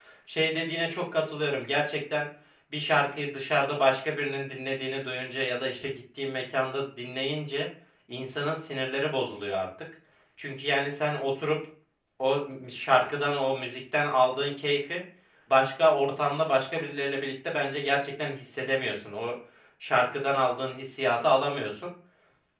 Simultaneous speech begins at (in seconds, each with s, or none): none